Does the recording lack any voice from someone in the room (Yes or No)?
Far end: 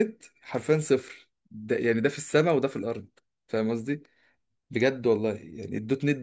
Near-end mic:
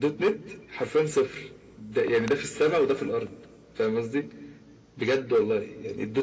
Yes